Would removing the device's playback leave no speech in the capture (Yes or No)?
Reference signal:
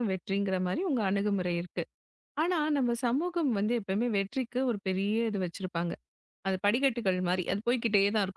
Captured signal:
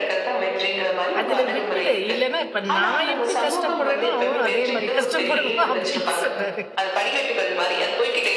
No